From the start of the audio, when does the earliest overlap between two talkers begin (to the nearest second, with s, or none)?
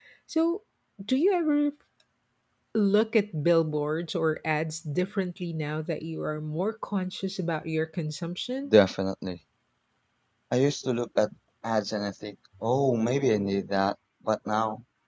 none